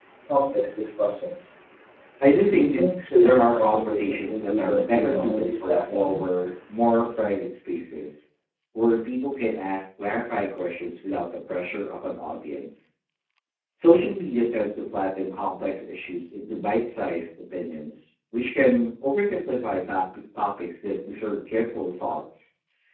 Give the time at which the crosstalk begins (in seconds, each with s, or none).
2.5 s